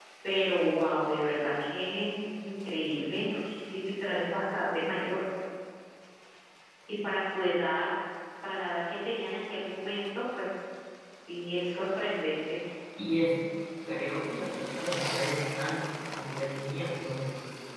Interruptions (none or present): none